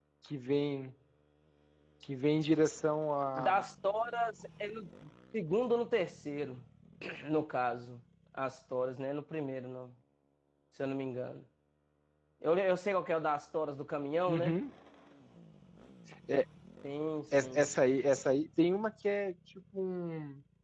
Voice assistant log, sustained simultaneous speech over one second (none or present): none